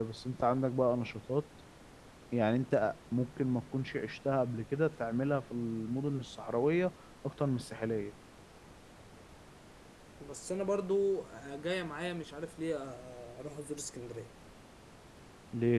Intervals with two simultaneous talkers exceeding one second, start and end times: none

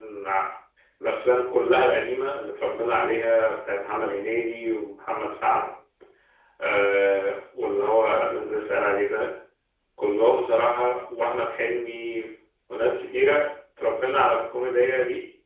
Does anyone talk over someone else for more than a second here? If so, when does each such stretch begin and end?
none

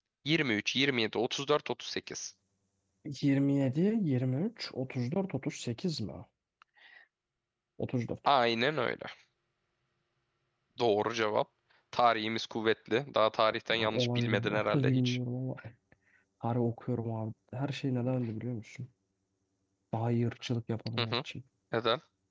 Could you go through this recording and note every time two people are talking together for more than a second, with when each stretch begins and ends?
13.7-15.2

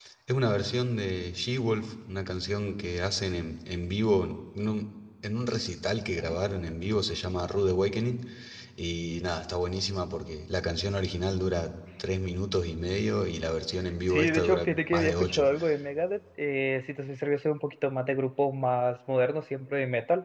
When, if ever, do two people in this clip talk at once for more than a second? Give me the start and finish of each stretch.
14.1-15.5

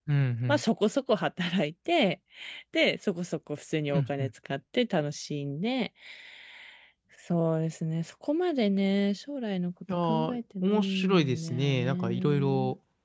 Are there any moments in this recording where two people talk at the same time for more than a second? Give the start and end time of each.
10.1-12.5

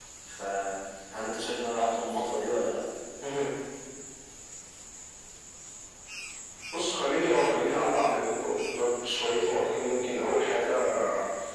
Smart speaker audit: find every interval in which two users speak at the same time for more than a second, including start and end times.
none

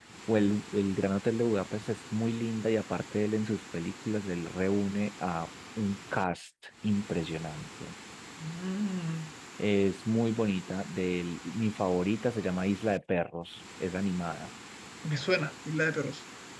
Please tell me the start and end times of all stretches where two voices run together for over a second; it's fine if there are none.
none

